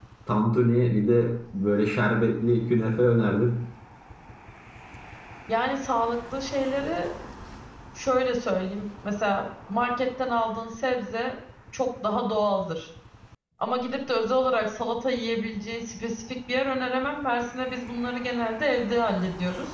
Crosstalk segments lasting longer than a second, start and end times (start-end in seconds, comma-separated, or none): none